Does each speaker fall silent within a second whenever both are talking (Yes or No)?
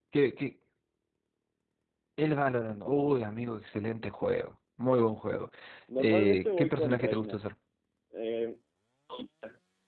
No